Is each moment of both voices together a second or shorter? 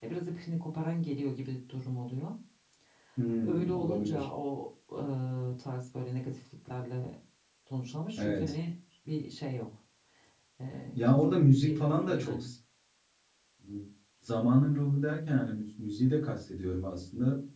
No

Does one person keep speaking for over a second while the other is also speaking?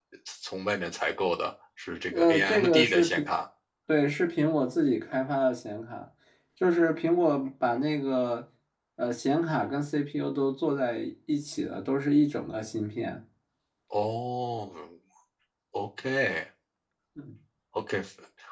Yes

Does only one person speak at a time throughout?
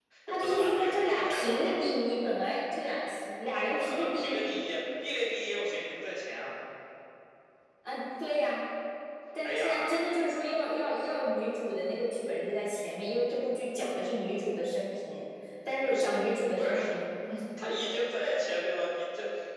No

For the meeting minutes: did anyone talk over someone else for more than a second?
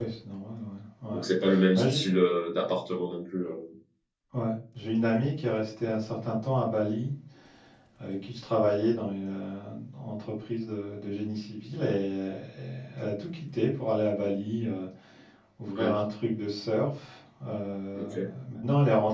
No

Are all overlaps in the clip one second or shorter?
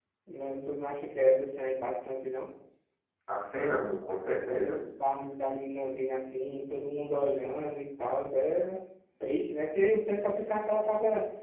Yes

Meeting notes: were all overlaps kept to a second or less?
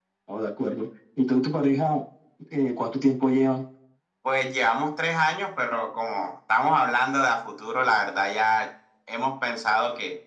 Yes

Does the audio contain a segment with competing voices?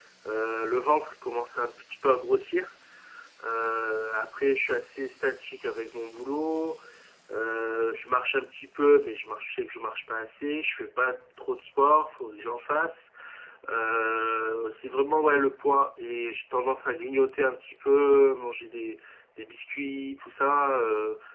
No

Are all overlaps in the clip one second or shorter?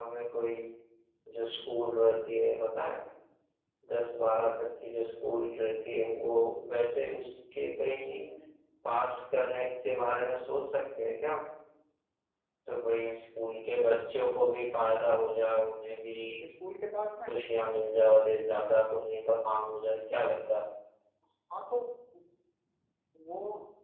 Yes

